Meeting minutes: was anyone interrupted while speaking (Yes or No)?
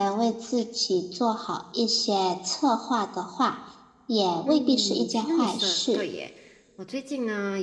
Yes